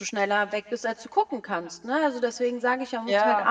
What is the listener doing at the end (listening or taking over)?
listening